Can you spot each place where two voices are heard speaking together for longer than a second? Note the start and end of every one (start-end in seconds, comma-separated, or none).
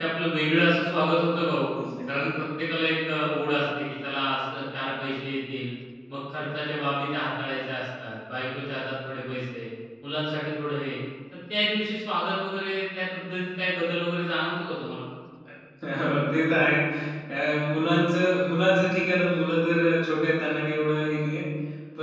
none